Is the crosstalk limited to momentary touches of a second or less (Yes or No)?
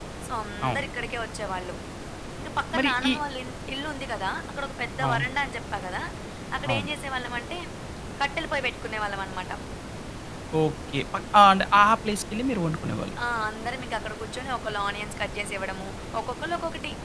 Yes